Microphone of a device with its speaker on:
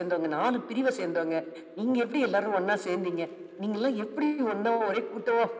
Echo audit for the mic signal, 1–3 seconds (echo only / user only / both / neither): echo only